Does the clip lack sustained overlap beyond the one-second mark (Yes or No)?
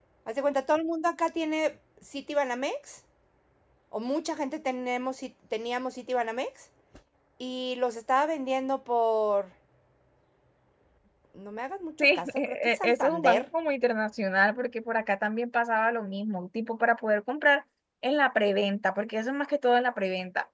No